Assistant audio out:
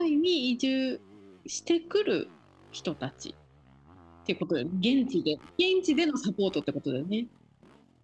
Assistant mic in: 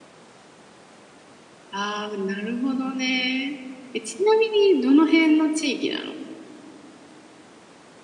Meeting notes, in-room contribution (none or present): present